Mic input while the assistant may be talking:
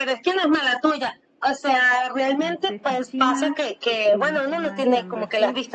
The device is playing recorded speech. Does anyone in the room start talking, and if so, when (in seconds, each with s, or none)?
2.3 s